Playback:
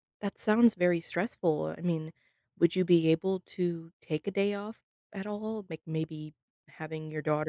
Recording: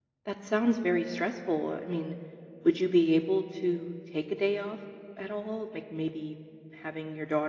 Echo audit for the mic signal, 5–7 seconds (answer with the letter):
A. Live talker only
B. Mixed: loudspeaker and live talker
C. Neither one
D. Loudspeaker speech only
D